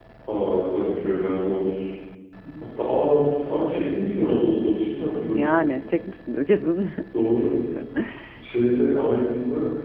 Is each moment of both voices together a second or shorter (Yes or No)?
Yes